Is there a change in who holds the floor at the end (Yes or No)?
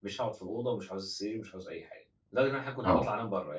No